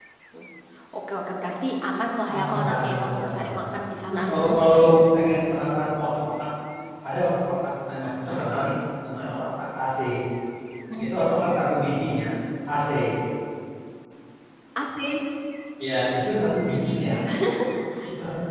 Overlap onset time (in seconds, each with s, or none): 2.2 s